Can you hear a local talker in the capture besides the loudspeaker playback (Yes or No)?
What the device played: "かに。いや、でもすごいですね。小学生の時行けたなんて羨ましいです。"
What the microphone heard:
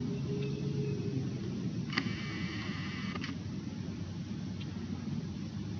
No